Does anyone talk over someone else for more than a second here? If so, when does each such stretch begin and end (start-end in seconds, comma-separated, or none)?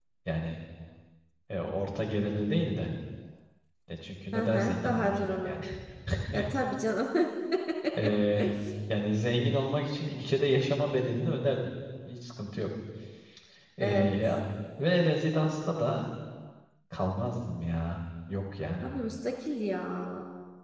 4.3-5.6